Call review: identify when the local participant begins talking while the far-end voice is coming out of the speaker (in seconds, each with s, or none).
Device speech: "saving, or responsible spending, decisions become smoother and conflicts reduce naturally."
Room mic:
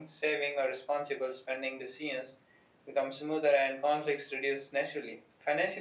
none